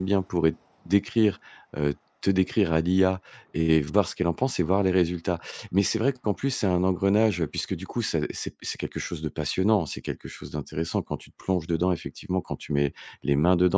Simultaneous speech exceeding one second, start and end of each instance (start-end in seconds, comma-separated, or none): none